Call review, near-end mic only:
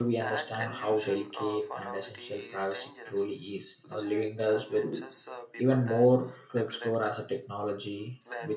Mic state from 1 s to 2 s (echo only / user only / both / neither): both